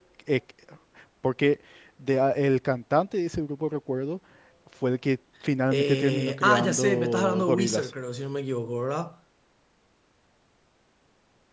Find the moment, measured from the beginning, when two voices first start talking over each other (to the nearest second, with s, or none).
6 s